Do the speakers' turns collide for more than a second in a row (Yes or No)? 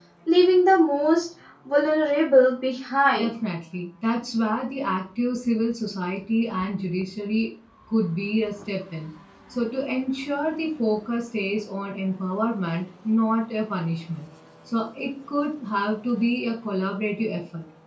No